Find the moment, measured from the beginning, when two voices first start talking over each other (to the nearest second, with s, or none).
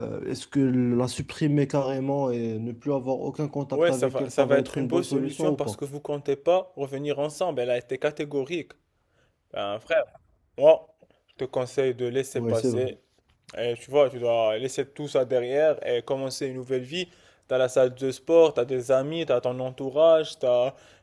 4 s